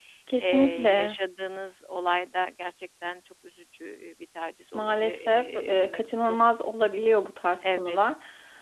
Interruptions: present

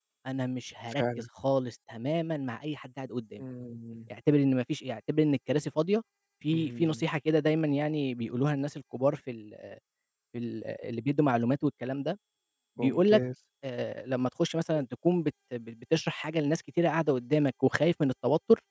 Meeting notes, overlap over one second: none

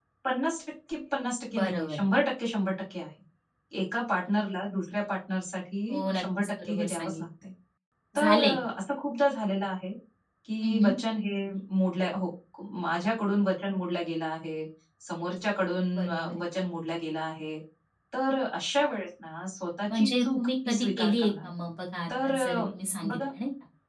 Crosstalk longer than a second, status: present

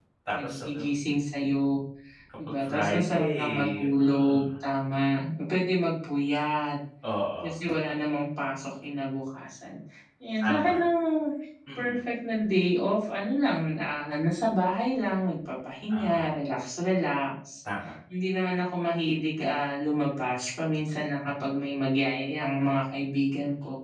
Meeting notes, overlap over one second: present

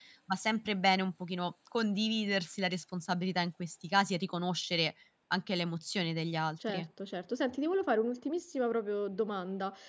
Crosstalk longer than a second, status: none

